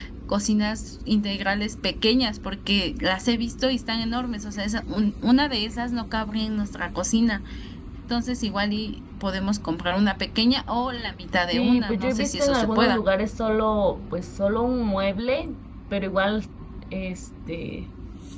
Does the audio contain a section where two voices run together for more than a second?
Yes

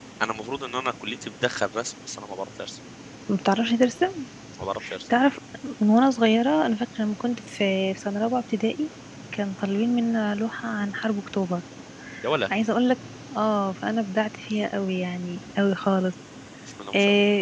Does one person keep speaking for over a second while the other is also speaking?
No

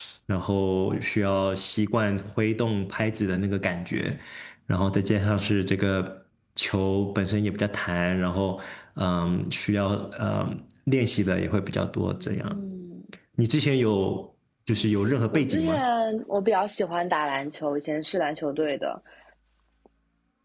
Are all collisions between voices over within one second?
Yes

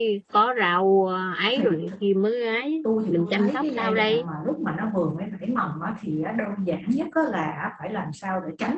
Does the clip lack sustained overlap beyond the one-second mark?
No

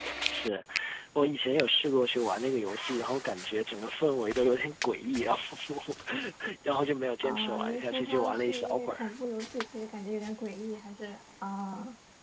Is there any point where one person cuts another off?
Yes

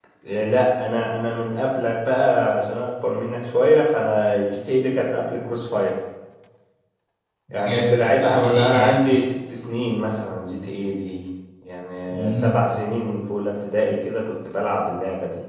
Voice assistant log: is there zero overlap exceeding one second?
No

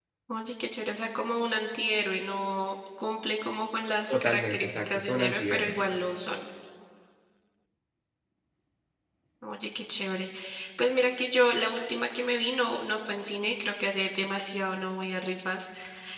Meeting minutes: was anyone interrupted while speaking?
Yes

